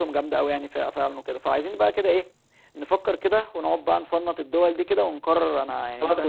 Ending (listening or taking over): taking over